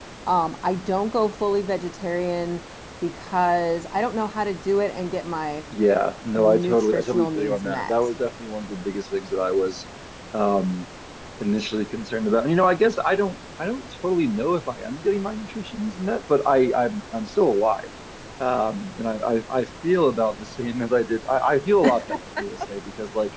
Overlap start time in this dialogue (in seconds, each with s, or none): 6.4 s